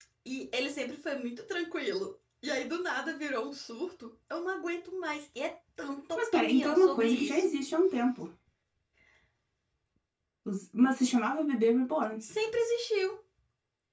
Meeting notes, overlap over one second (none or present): present